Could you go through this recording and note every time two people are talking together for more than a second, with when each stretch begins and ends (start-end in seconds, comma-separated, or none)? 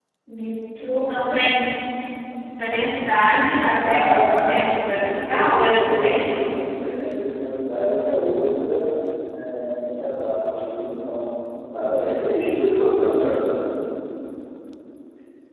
3.8-6.3